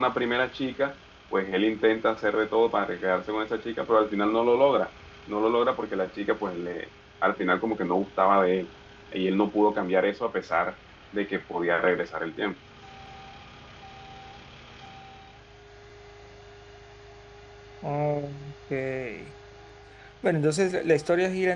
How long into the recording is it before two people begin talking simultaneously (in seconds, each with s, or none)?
none